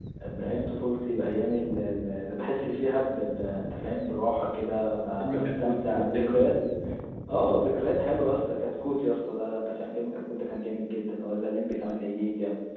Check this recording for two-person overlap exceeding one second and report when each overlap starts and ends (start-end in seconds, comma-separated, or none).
5.2-6.4